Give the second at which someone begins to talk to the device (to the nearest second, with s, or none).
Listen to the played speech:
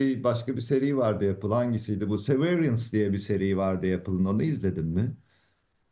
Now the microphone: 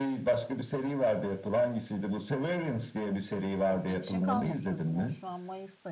4 s